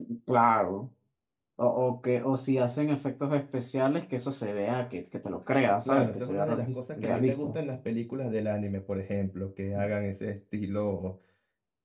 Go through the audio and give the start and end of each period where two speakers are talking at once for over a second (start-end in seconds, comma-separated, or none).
5.8-7.6